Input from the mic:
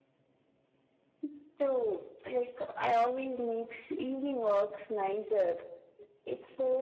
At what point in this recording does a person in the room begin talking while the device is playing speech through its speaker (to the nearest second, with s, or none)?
none